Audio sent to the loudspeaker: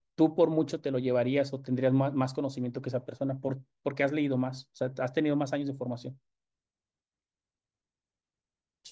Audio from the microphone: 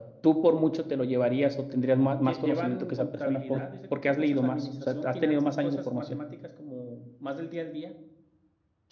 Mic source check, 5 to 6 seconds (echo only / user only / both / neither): both